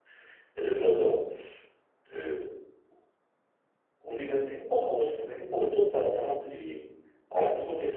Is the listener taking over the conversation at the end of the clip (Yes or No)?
No